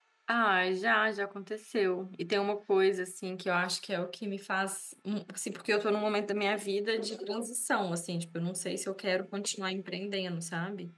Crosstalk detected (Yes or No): No